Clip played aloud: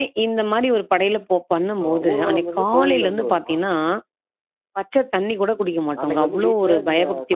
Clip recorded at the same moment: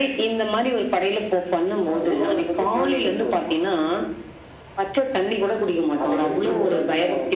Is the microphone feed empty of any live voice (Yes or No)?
No